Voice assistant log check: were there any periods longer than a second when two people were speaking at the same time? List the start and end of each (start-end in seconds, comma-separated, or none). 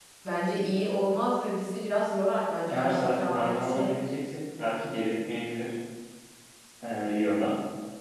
2.7-4.0